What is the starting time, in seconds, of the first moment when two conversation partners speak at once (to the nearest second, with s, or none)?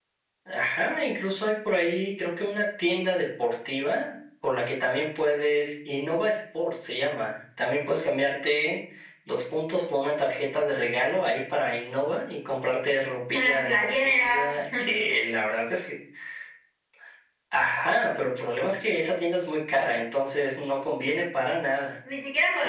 13 s